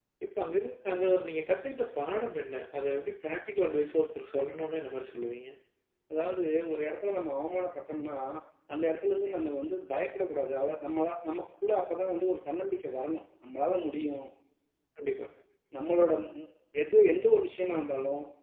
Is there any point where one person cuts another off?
No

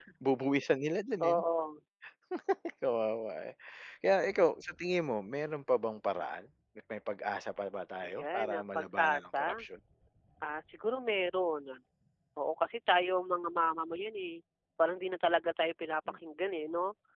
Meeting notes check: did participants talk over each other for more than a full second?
Yes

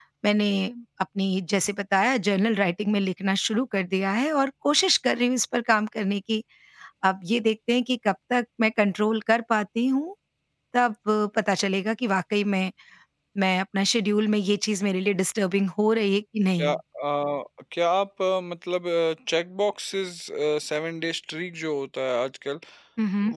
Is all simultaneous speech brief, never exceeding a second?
Yes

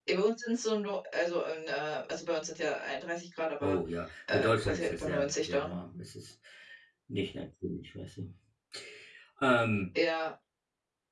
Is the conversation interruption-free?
No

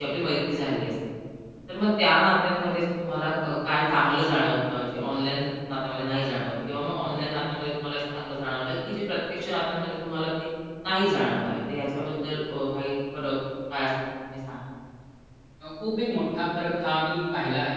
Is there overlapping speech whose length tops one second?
No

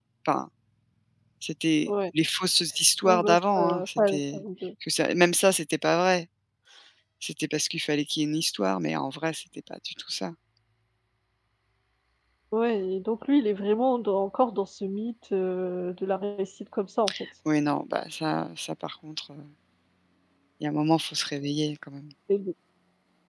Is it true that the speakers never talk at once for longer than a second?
No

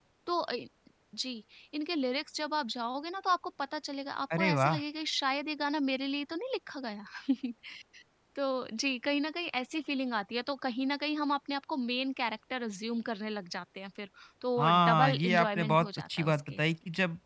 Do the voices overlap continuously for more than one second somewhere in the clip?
Yes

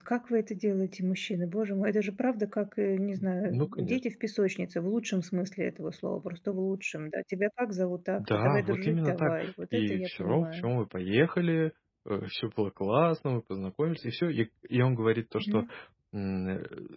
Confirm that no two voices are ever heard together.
No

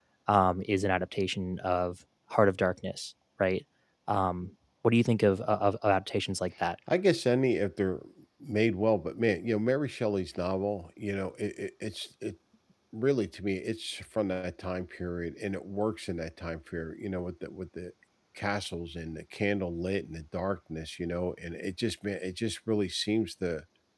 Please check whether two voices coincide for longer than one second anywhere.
No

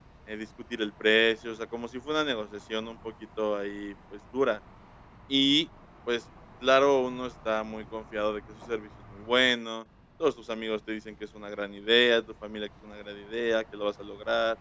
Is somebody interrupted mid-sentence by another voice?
No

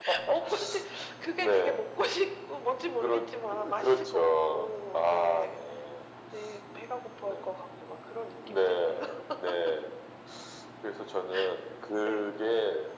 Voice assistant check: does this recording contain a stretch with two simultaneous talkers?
Yes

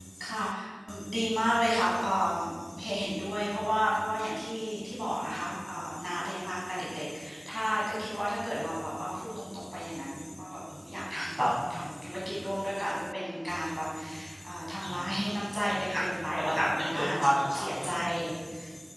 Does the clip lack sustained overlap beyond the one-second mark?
No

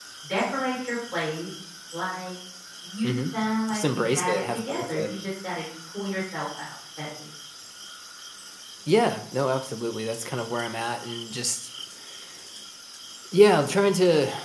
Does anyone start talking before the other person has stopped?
Yes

